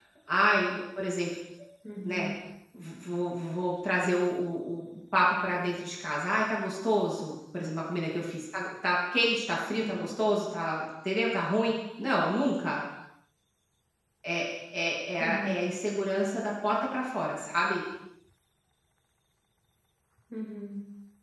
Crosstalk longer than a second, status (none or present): none